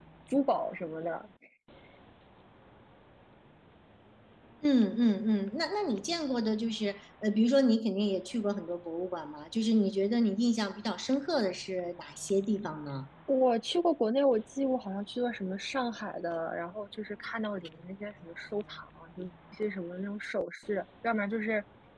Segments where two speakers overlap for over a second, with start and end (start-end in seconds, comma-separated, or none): none